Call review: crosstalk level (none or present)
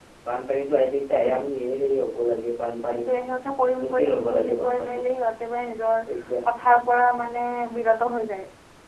present